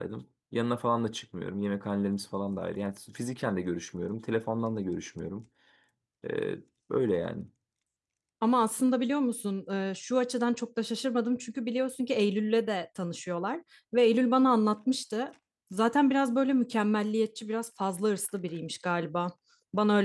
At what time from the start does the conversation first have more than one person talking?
none

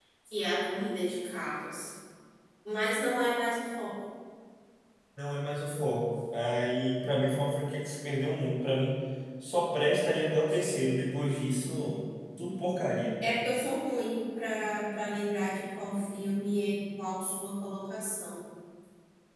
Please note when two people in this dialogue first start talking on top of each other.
none

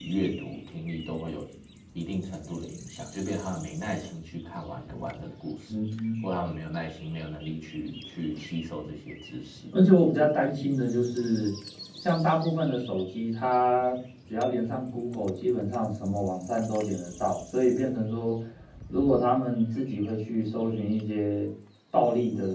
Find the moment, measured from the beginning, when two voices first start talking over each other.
none

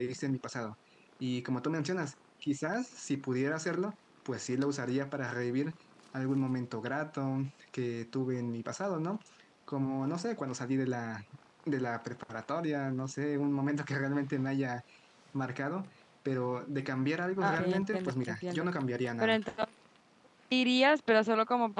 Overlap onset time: 17.4 s

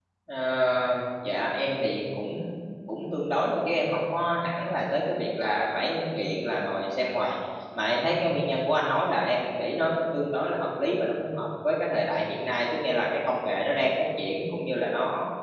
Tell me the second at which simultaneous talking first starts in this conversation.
none

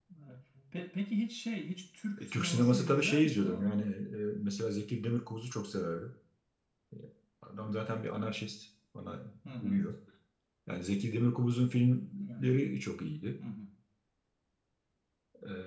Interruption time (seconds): 2.2 s

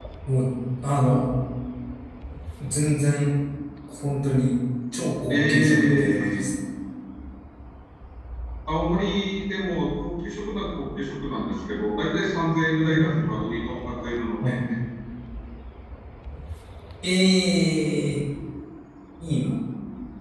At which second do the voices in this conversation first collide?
5.3 s

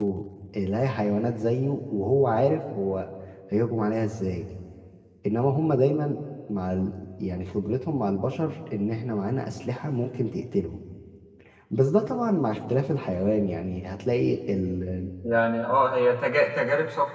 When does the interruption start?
none

